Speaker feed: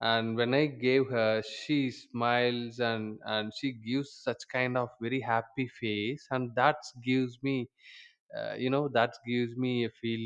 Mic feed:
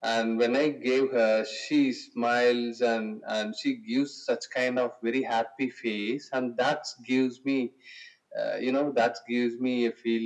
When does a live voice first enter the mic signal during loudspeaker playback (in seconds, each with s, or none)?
none